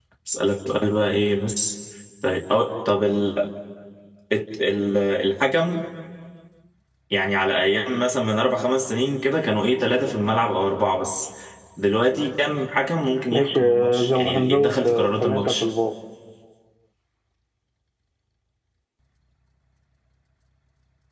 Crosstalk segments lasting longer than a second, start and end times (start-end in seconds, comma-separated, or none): 13.3-15.7